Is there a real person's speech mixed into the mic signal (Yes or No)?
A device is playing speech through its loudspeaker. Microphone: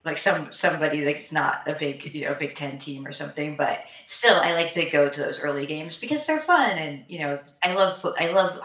Yes